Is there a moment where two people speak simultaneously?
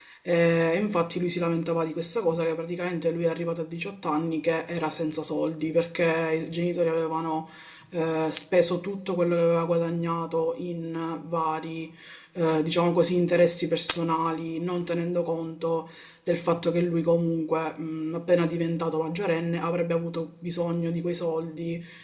No

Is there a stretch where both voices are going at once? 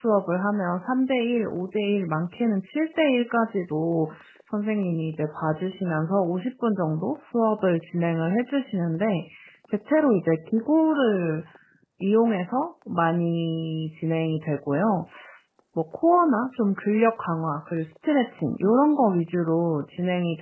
No

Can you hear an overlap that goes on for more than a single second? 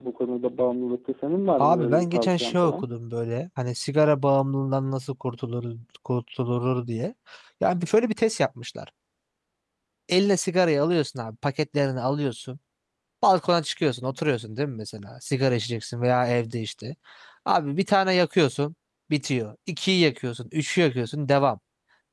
Yes, from 1.6 s

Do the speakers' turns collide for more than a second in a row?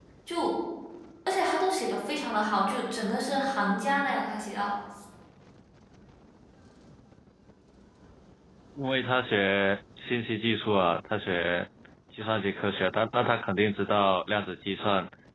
No

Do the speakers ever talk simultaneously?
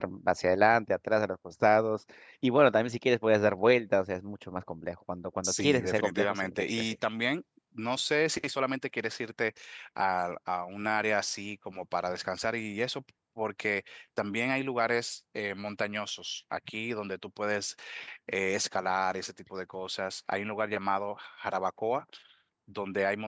Yes, from 5.4 s

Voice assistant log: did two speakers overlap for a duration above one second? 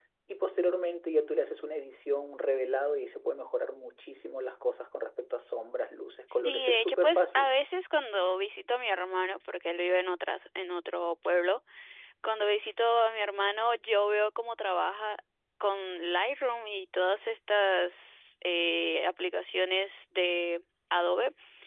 Yes, from 6.3 s

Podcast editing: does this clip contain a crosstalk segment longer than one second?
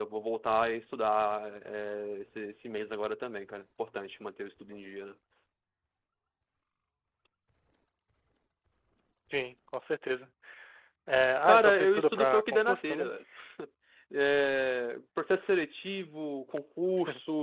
Yes, from 11.4 s

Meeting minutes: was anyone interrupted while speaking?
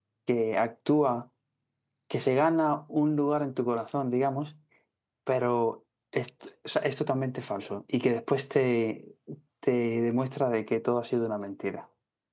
No

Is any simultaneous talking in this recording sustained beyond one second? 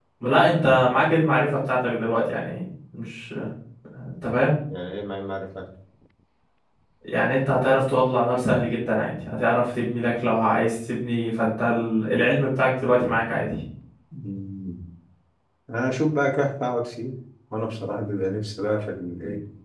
No

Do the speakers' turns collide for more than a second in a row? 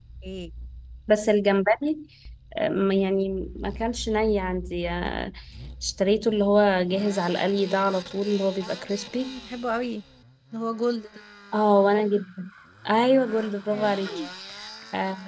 No

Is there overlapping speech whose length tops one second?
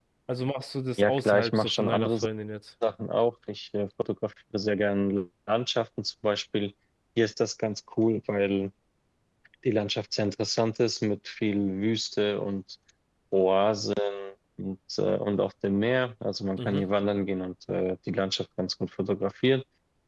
Yes, from 1.0 s

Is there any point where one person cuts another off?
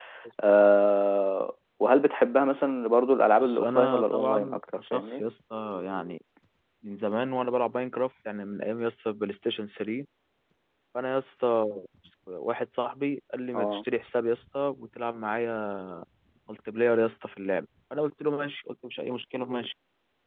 Yes, from 3.4 s

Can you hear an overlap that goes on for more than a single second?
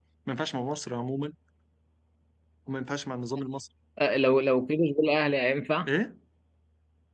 No

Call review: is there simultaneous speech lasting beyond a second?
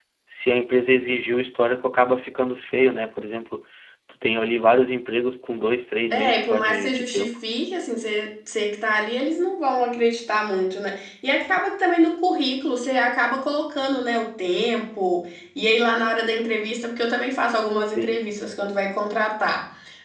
Yes, from 6.1 s

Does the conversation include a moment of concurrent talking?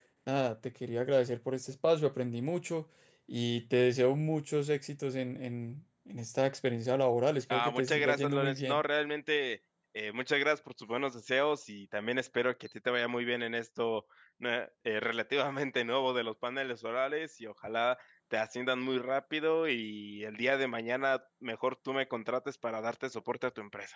Yes, from 7.5 s

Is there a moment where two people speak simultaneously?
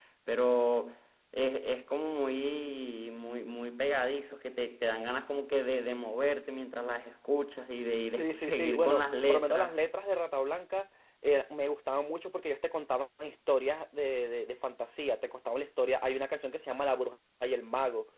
Yes, from 8.2 s

